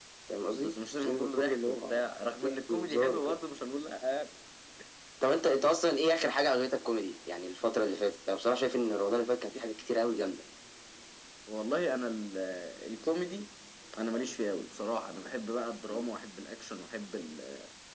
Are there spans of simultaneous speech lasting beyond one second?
Yes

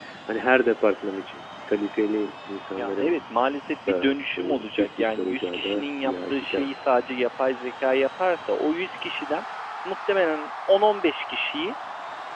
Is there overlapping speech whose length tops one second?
Yes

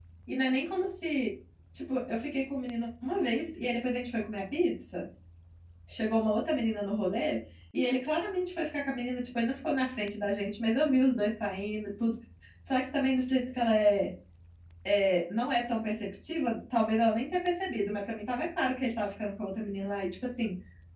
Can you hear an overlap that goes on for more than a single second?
No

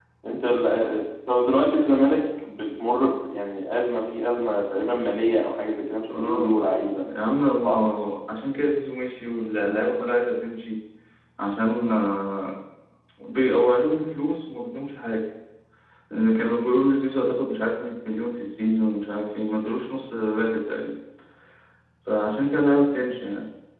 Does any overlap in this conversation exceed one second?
No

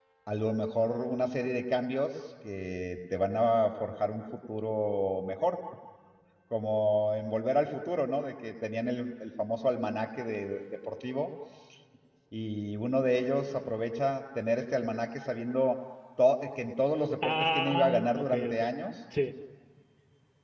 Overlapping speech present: Yes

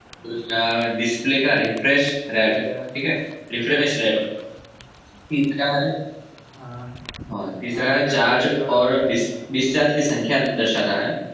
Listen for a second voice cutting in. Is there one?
Yes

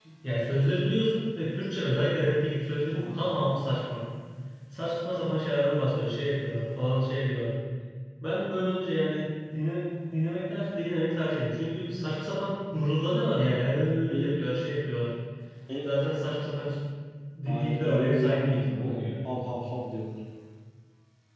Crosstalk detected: Yes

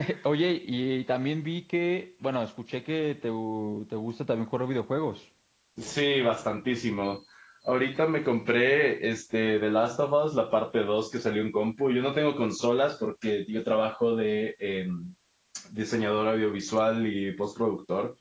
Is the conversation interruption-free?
Yes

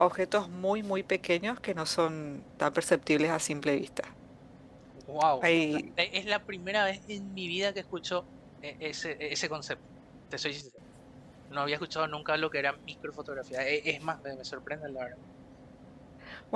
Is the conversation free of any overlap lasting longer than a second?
Yes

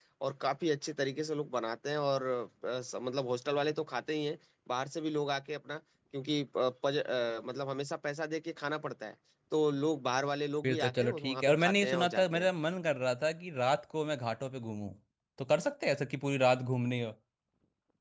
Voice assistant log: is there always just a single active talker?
No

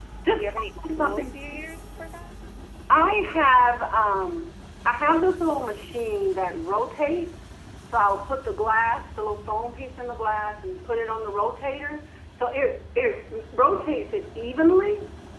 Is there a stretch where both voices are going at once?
Yes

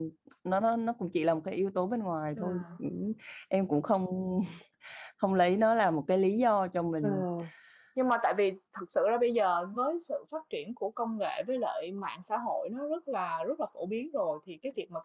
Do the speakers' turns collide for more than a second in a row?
No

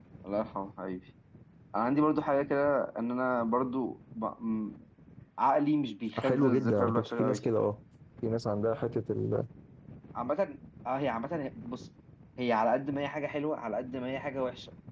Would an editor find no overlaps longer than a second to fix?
No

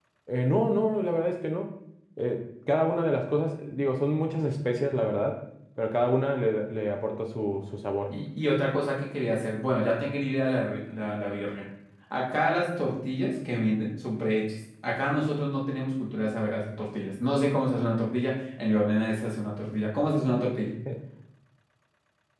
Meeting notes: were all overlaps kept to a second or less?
Yes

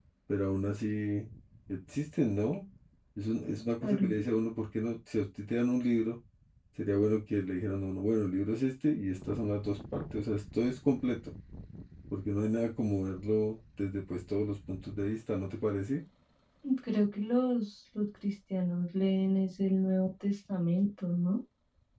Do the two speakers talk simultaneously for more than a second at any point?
No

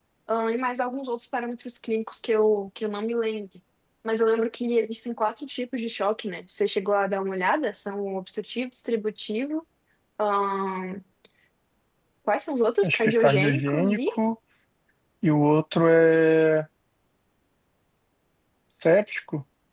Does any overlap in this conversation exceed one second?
Yes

